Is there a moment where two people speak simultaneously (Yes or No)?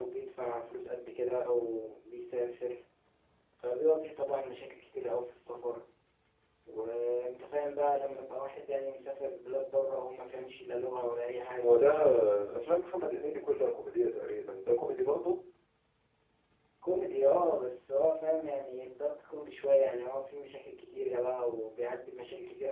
No